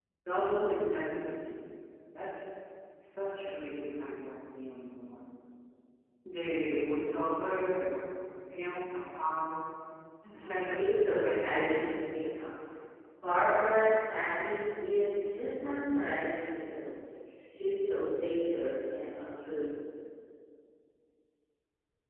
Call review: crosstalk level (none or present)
present